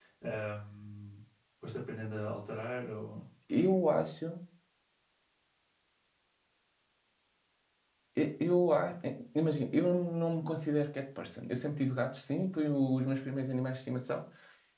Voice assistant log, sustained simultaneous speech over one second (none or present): none